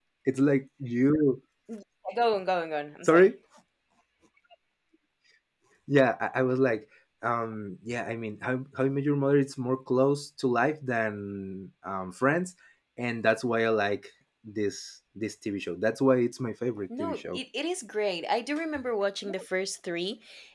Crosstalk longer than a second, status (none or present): none